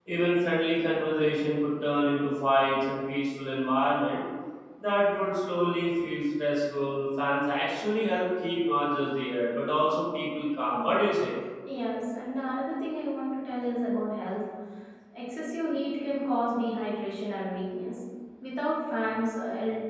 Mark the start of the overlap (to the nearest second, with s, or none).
none